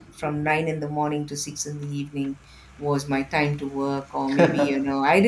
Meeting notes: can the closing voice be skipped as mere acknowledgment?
Yes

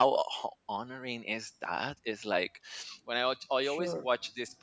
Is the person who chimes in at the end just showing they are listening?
Yes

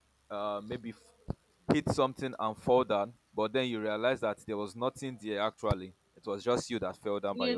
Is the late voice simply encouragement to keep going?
No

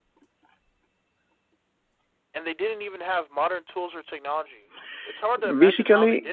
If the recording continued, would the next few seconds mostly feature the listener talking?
Yes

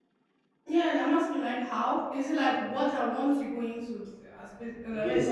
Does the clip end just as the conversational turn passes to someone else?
Yes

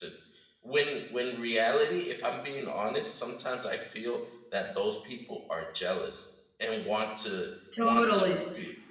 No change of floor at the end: Yes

